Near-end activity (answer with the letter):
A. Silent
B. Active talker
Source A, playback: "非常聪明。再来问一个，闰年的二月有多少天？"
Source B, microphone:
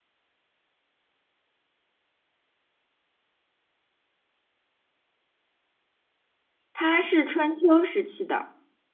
B